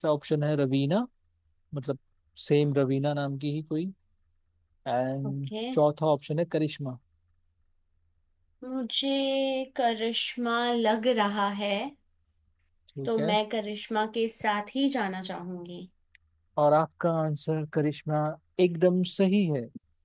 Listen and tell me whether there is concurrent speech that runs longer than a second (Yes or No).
No